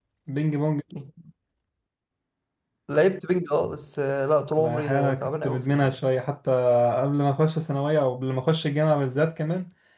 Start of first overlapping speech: 4.6 s

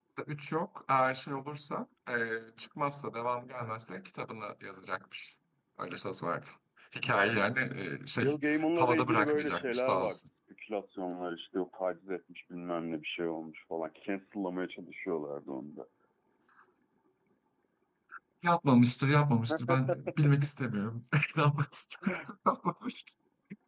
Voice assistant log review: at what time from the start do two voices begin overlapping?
8.2 s

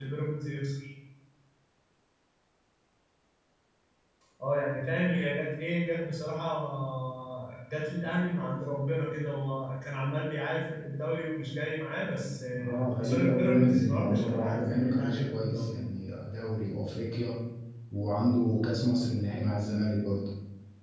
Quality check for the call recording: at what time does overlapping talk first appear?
12.5 s

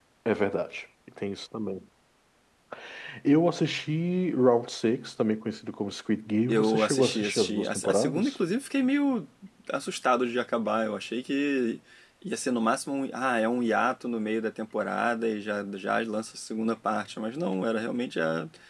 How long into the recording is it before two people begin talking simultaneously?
6.5 s

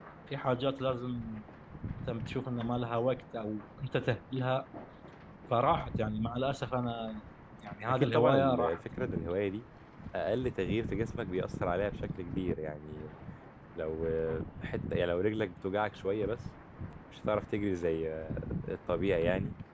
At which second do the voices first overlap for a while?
7.9 s

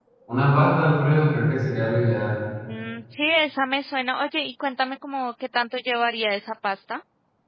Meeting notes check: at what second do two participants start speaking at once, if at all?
none

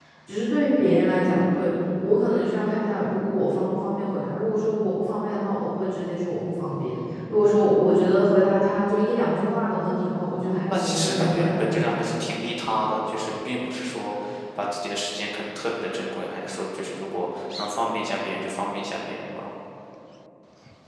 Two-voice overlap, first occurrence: 10.7 s

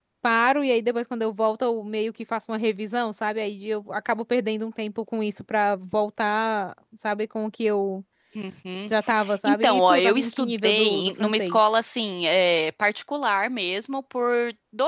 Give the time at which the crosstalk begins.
9.4 s

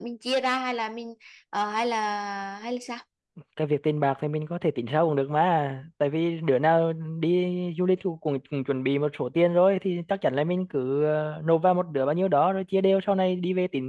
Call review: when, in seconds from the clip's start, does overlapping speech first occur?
none

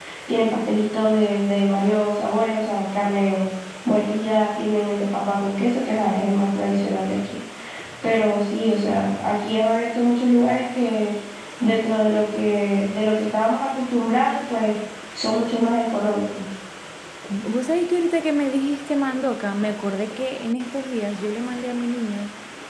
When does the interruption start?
none

